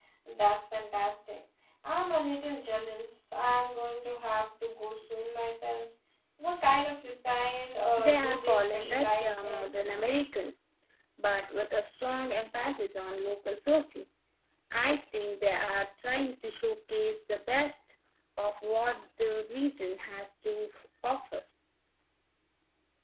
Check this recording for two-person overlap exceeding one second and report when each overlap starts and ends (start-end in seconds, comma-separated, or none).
8.0-9.7